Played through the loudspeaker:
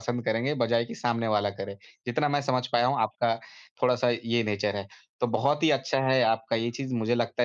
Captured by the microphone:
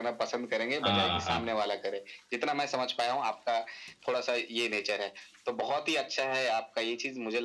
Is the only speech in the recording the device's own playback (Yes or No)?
No